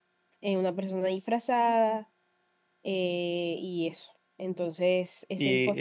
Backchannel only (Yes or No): No